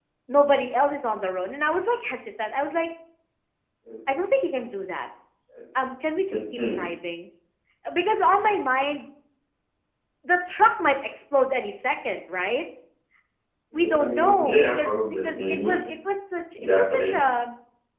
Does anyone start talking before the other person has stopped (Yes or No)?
Yes